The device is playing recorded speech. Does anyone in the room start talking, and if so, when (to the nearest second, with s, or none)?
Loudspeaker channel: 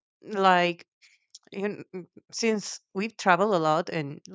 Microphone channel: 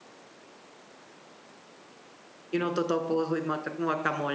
3 s